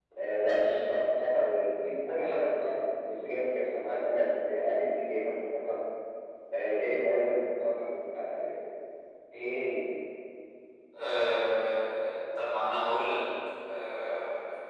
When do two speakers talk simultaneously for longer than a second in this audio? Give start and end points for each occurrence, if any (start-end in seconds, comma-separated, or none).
none